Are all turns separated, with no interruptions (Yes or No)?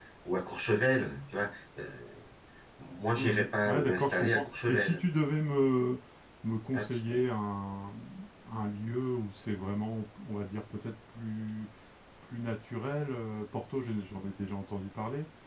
No